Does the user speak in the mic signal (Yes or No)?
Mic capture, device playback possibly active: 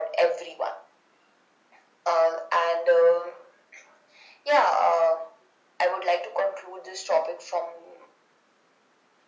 No